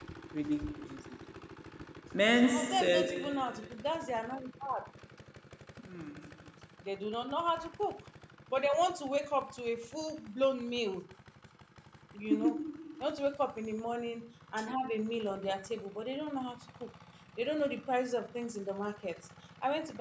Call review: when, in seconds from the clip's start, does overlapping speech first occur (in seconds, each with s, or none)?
2.4 s